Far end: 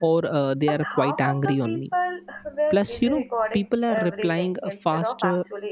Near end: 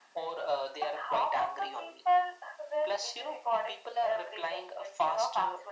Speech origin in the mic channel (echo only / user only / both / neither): echo only